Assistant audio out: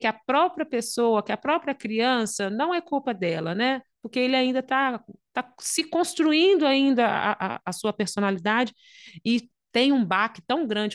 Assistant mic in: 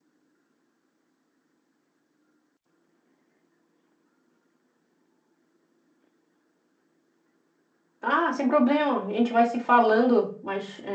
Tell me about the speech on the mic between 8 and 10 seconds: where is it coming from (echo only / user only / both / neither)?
user only